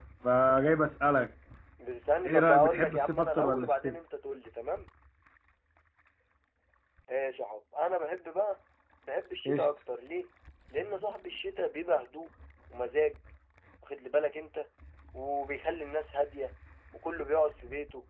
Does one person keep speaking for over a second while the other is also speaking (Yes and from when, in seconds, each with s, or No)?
Yes, from 2.2 s